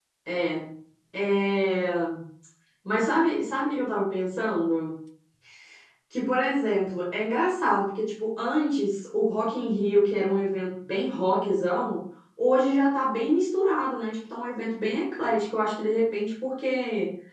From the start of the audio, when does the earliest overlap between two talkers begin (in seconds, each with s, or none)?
none